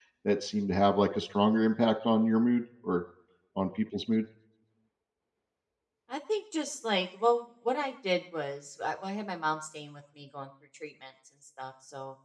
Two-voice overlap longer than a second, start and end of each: none

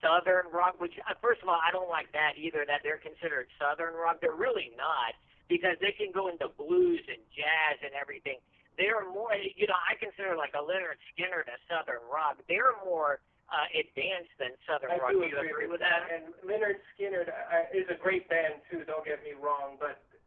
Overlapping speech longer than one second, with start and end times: 14.9-16.1

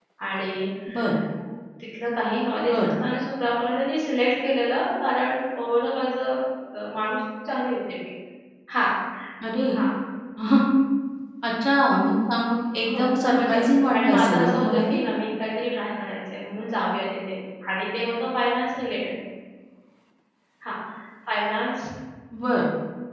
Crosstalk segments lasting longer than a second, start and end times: 12.9-15.0

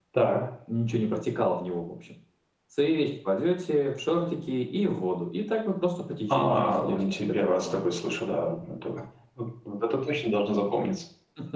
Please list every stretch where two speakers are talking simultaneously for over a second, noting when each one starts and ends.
6.3-7.8

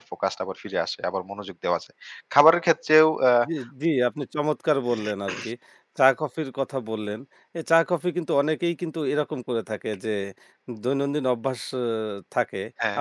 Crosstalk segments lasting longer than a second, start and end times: none

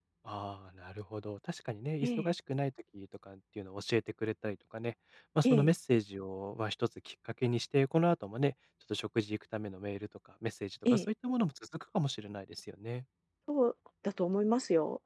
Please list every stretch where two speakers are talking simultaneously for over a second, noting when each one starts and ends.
none

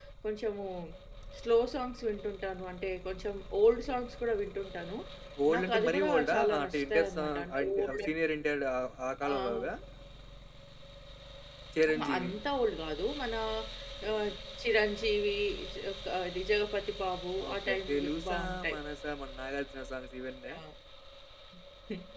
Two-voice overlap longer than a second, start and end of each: 5.5-8.0, 17.5-18.8

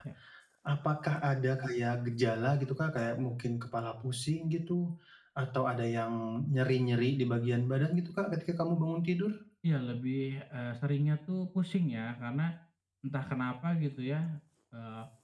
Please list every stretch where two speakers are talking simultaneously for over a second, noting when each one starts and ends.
none

